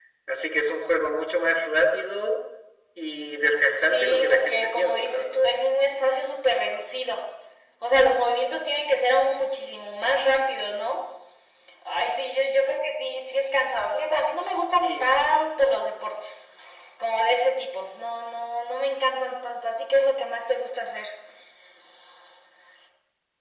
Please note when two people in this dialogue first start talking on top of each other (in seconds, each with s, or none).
3.6 s